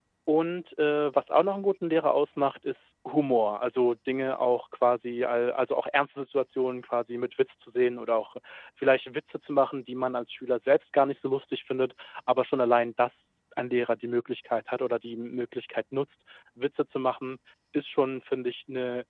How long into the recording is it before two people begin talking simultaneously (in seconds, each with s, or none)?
none